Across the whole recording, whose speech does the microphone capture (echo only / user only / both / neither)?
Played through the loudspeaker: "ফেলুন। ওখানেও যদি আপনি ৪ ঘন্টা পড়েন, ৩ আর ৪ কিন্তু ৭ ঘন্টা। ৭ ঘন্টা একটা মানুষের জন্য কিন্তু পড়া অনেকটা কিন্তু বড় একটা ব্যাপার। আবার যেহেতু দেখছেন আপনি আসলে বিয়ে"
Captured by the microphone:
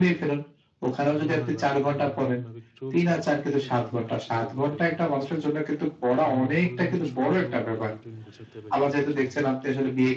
both